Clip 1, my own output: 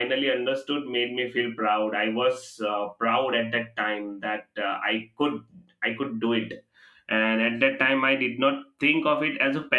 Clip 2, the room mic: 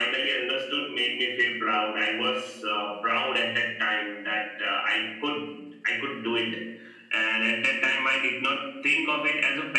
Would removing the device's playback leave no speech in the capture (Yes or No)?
Yes